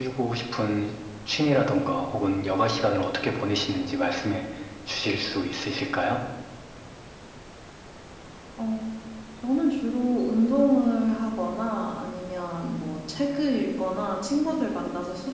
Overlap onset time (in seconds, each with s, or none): none